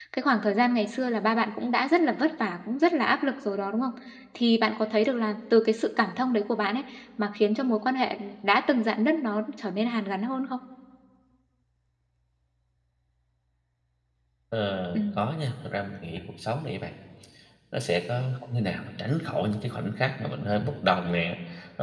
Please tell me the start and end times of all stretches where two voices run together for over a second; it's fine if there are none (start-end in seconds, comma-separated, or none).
none